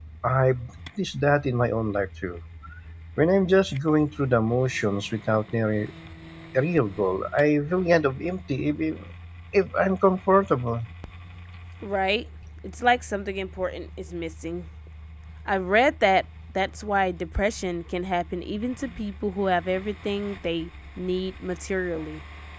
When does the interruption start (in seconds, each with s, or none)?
none